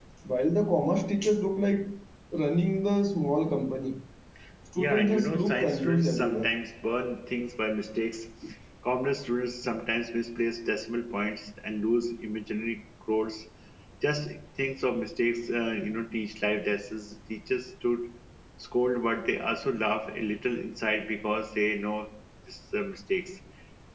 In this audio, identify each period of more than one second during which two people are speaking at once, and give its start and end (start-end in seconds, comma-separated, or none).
4.8-6.5